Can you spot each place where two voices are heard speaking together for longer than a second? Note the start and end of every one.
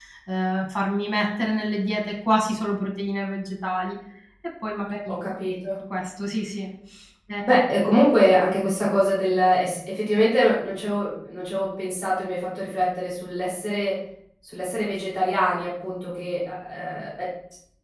none

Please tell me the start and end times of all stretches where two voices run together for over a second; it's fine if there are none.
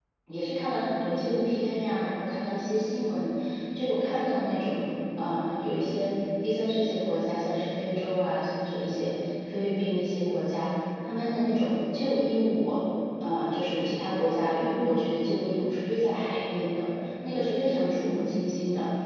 none

